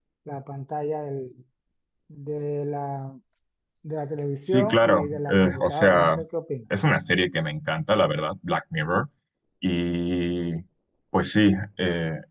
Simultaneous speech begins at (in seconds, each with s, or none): 4.4 s